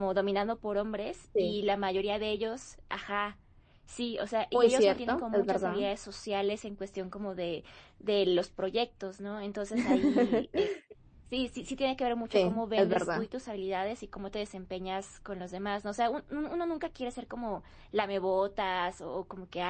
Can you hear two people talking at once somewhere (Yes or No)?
Yes